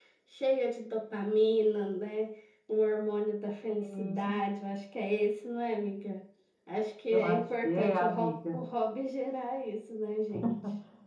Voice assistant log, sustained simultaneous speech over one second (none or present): present